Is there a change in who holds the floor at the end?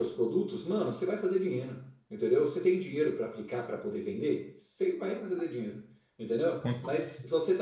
No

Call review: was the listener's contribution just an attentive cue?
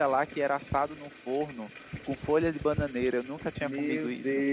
No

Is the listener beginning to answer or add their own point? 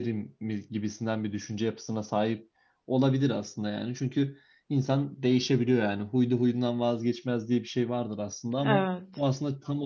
No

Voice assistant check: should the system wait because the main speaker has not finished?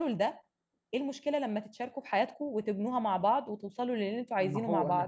No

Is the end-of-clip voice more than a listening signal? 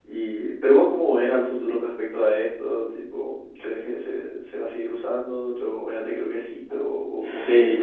Yes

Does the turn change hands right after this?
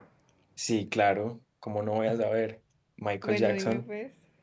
Yes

